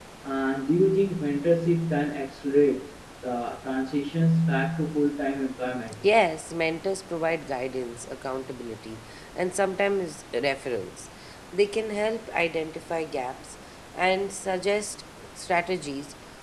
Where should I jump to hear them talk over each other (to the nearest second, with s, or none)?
none